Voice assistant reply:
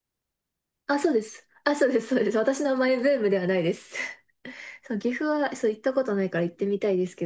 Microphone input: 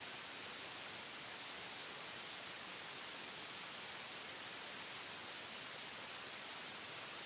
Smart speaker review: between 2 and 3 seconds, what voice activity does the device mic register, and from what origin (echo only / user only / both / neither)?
neither